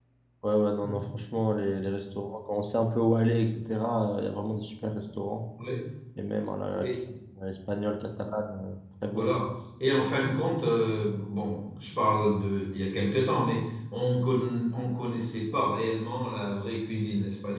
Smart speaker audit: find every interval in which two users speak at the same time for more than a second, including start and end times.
none

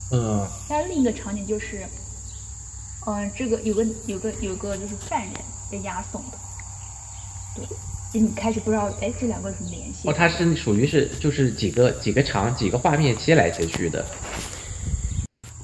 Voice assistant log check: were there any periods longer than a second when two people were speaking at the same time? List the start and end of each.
none

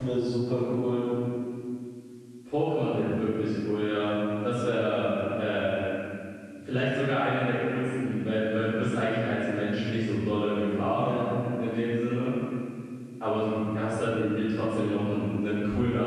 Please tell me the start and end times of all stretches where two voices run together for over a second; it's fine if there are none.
none

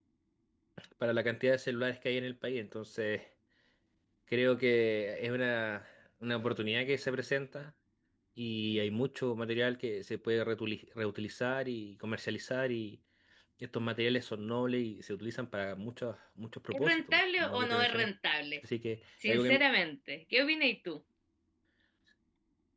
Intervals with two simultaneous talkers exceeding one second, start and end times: 16.7-18.1

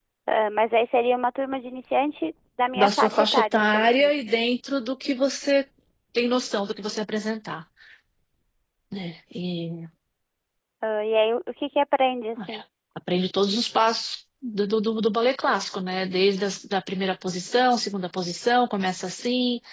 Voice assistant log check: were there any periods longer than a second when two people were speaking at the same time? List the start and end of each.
2.8-4.1

